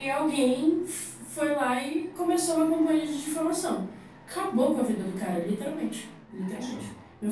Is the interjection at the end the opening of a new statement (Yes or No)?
No